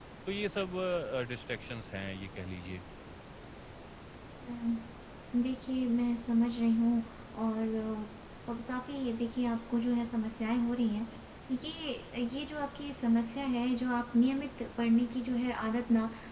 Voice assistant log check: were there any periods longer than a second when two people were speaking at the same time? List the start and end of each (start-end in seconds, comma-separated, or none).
none